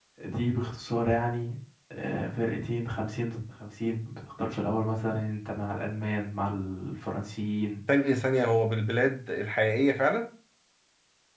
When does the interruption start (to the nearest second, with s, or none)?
none